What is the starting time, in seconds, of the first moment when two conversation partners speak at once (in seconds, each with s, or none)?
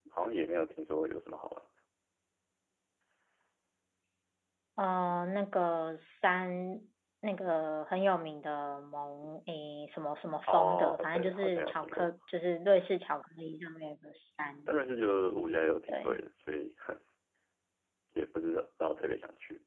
10.4 s